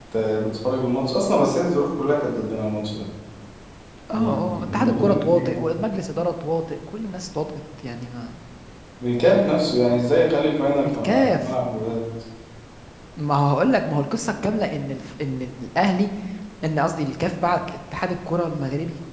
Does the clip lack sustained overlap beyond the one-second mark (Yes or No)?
No